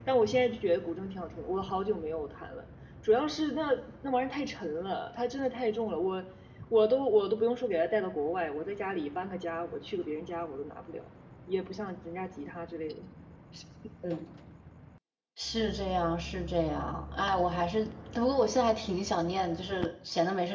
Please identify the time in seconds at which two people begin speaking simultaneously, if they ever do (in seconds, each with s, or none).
none